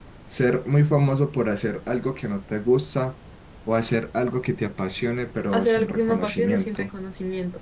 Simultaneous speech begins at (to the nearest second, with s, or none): 6 s